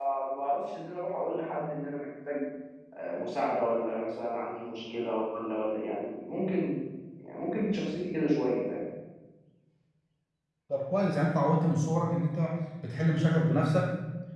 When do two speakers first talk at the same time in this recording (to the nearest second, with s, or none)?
none